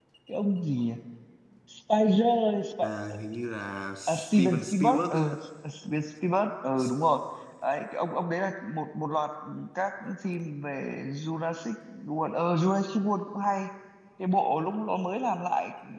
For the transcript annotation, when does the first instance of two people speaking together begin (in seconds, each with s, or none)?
4.1 s